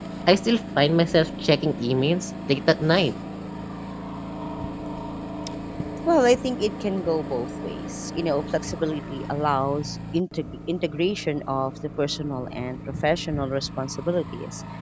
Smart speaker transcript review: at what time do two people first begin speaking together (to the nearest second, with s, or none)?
none